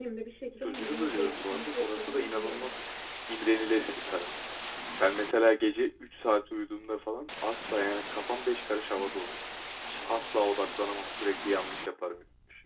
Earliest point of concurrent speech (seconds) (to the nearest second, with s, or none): 1 s